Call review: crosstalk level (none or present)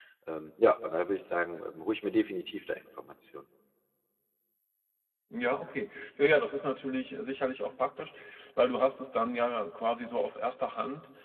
none